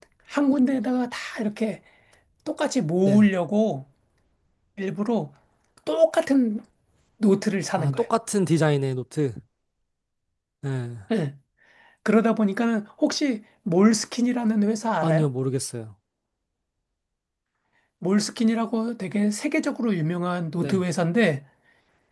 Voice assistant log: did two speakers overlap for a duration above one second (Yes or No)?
No